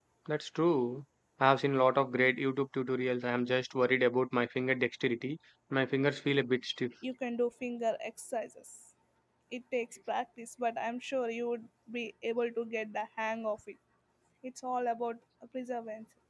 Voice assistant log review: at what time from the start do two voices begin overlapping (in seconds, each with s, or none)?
none